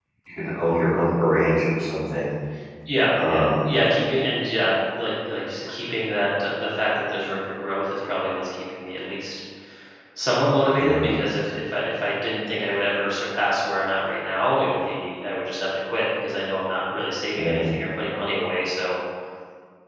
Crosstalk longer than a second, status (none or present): none